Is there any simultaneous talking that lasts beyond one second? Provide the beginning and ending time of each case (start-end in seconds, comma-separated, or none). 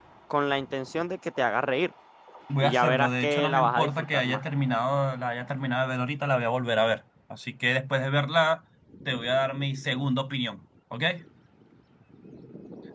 2.6-4.4